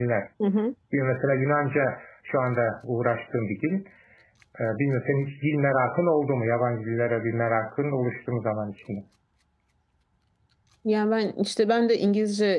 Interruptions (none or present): none